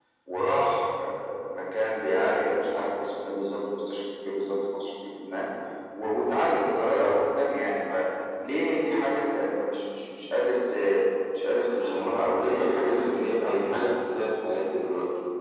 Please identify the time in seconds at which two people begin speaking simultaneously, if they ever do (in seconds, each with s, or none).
11.7 s